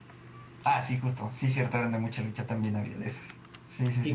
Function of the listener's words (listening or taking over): taking over